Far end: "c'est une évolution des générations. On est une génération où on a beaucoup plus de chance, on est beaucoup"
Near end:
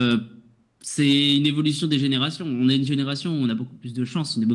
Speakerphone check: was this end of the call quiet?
Yes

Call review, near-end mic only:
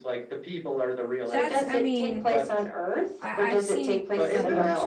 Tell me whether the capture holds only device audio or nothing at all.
No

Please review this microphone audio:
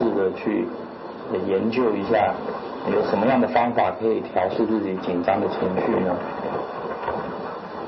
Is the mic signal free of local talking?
Yes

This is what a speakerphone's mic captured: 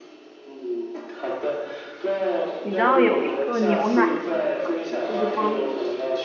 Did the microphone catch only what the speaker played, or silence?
No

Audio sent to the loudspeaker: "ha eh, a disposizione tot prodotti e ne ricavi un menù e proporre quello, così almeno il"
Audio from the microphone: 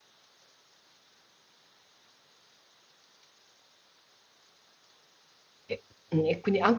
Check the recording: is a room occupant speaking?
Yes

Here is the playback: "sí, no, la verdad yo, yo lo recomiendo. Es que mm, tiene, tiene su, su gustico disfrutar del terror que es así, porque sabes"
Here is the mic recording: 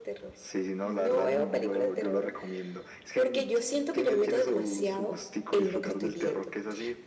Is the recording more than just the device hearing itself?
Yes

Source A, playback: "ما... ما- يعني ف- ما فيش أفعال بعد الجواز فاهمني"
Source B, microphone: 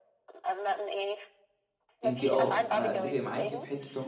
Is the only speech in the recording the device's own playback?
No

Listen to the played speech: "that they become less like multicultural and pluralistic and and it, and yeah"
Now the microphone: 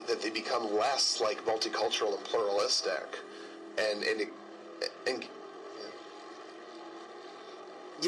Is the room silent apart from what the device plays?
Yes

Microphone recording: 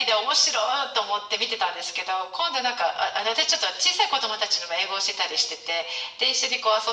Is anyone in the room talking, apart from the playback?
No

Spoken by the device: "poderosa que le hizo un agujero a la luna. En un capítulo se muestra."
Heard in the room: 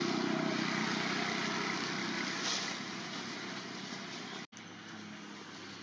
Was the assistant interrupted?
No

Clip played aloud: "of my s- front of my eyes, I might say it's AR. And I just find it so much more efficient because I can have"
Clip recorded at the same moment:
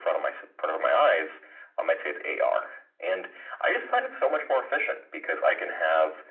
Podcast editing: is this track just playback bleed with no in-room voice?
Yes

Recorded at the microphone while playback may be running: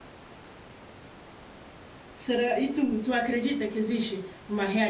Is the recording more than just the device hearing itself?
Yes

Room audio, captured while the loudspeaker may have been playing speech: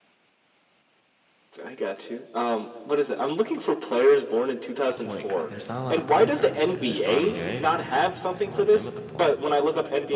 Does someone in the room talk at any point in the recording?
Yes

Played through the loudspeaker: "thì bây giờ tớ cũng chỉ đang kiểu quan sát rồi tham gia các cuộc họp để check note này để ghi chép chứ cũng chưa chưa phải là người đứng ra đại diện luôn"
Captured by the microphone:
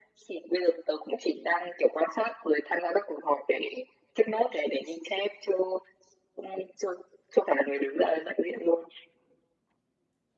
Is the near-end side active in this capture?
No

